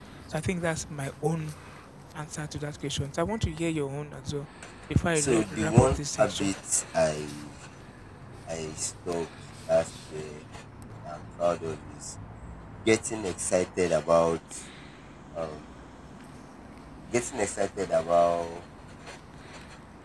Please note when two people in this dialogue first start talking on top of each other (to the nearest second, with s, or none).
5 s